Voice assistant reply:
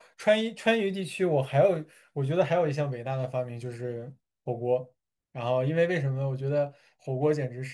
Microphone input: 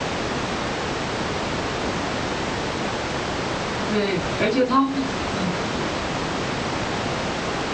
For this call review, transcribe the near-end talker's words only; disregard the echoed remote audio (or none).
对，而且它会，嗯